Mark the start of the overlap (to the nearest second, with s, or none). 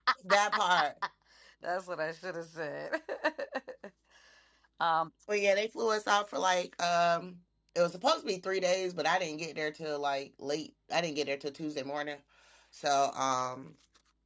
none